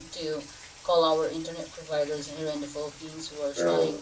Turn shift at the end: No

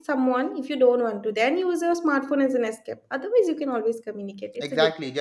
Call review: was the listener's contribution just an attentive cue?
No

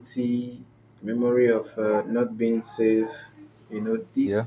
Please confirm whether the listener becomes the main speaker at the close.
No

